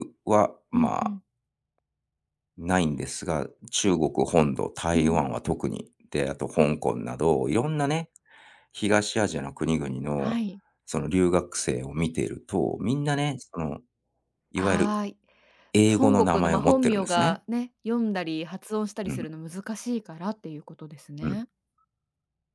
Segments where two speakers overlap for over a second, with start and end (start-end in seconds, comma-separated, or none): 15.9-17.4